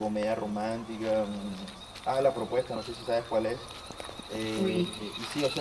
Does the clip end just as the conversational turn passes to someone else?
No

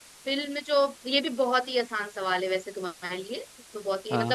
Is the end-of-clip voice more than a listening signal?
No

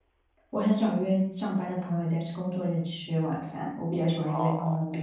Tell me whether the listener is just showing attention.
Yes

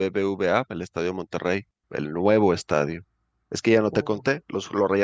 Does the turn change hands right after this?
No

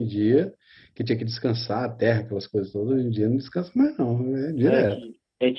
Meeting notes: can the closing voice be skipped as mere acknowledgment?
No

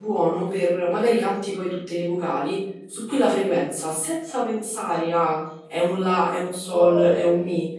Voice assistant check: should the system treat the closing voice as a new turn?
No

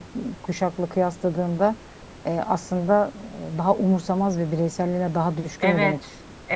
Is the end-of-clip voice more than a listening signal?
Yes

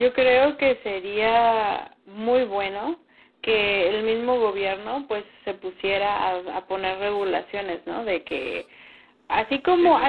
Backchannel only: Yes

